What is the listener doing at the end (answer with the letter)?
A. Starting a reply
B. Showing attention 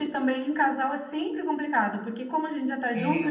B